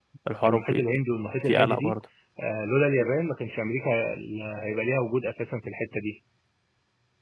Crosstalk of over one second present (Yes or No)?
No